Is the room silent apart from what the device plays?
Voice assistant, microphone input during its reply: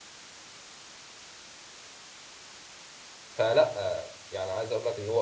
No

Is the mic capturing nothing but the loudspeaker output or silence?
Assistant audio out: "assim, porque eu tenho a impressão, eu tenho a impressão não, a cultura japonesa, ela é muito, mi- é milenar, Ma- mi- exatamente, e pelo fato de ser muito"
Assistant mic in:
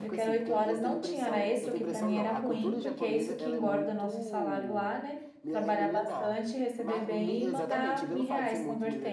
No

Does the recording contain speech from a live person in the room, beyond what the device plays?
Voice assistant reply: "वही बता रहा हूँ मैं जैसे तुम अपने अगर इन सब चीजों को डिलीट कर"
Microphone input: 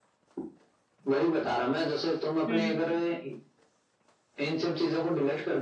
Yes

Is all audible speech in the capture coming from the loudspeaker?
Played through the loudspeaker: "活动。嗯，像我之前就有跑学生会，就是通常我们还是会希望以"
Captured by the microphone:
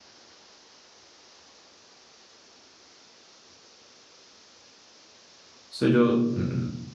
No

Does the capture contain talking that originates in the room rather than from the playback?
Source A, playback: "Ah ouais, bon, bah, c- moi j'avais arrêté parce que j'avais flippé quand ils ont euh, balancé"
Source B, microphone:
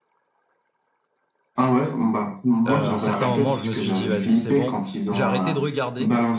Yes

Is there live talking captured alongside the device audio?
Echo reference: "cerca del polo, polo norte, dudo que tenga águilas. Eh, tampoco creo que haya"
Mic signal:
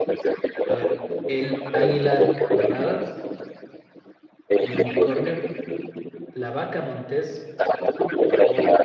Yes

